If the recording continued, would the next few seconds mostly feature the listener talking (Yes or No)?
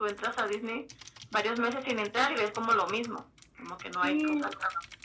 Yes